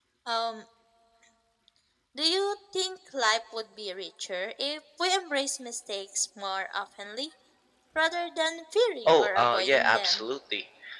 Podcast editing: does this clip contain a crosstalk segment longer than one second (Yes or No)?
Yes